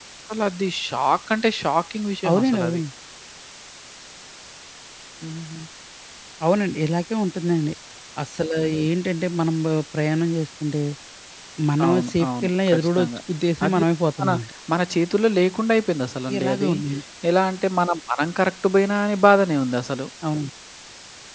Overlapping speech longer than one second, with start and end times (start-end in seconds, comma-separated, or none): 11.8-13.1